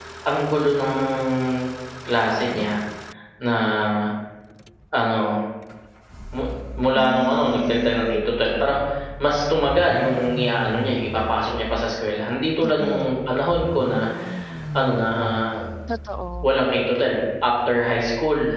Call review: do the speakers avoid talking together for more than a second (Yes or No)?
No